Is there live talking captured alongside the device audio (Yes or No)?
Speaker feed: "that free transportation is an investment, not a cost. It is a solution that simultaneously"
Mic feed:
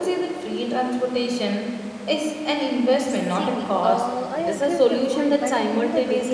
Yes